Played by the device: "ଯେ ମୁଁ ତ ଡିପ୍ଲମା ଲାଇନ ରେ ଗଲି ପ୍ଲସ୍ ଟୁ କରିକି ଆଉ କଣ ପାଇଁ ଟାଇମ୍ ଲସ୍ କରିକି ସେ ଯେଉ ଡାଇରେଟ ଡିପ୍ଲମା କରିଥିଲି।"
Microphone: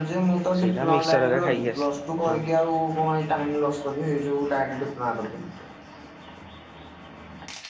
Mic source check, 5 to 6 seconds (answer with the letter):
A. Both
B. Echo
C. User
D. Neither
B